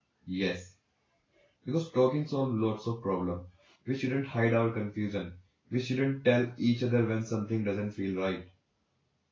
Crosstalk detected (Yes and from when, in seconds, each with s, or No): No